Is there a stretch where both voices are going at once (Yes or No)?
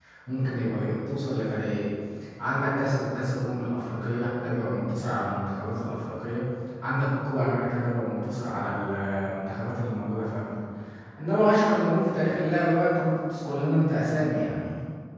No